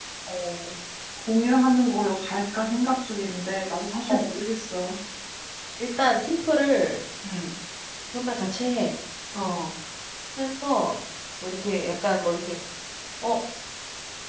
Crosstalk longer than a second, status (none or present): none